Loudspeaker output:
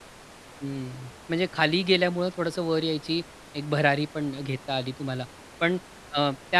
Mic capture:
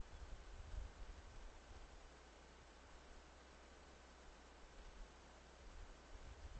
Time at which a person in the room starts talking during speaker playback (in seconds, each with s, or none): none